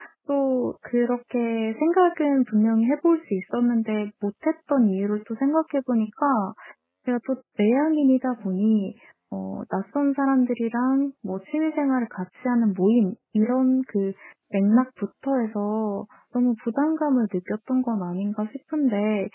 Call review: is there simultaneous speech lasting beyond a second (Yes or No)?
No